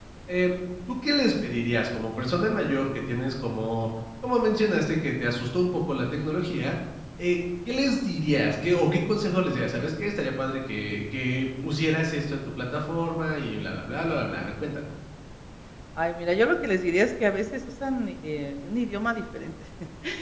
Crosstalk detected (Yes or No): No